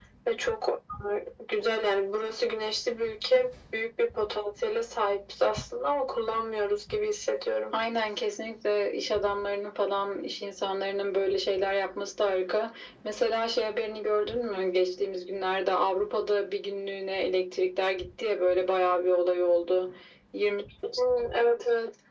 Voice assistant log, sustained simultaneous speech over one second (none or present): none